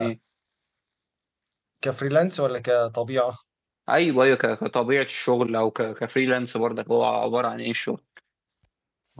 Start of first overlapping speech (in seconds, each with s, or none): none